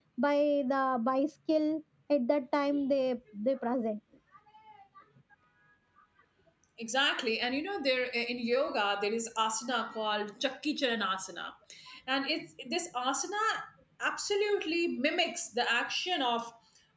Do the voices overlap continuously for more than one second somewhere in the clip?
No

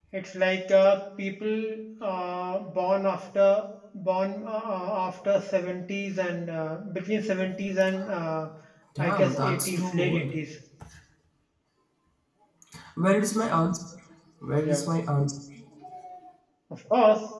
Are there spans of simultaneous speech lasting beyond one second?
Yes, from 9.0 s

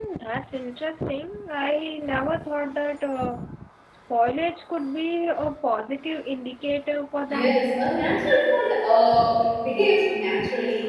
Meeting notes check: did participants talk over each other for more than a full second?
No

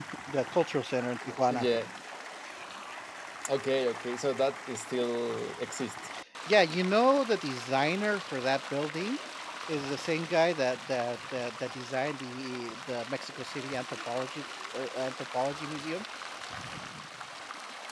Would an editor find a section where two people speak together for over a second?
No

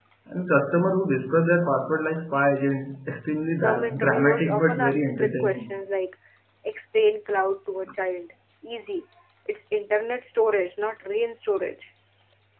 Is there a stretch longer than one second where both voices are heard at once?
Yes, from 3.5 s

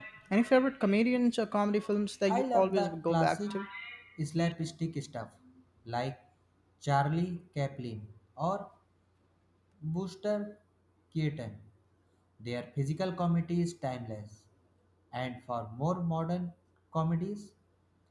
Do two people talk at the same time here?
Yes, from 2.3 s

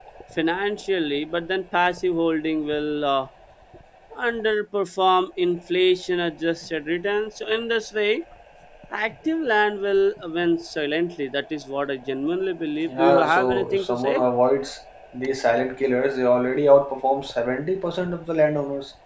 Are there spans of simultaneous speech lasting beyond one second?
Yes, from 12.9 s

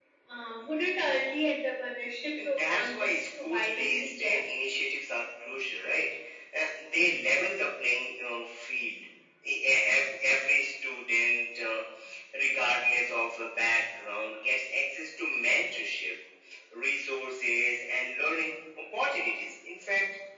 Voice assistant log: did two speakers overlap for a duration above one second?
Yes, from 2.4 s

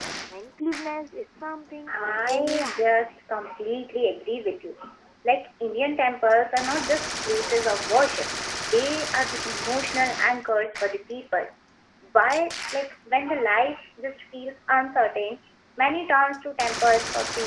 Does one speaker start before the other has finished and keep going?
Yes, from 1.9 s

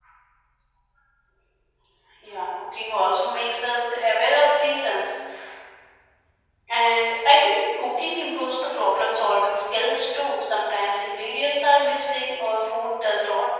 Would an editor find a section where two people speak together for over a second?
No

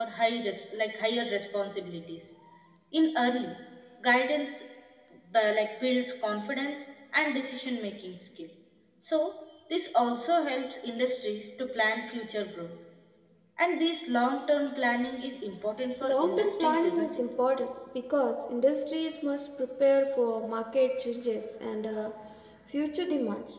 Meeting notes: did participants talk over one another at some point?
Yes, from 16.0 s

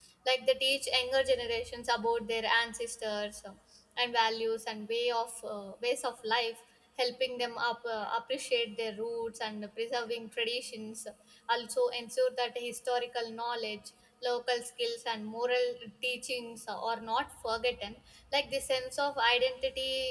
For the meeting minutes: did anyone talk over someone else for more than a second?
No

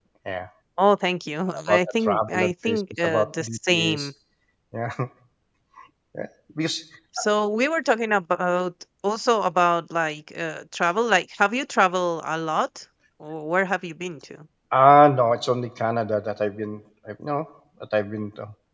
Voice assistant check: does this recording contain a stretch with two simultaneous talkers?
Yes, from 1.7 s

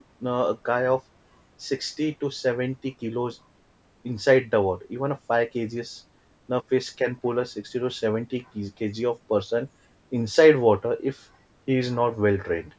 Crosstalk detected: No

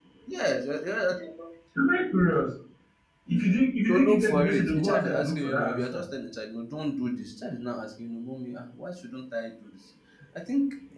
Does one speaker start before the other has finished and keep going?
Yes, from 3.9 s

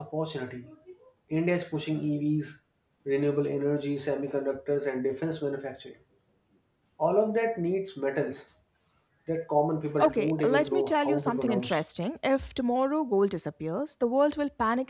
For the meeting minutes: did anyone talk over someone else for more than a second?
Yes, from 10.0 s

